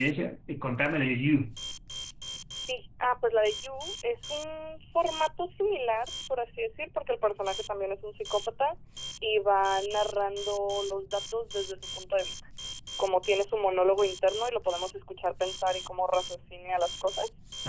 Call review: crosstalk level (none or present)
none